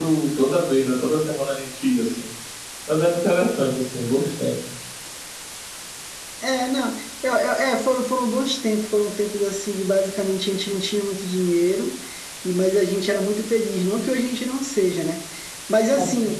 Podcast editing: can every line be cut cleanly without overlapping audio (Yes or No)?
Yes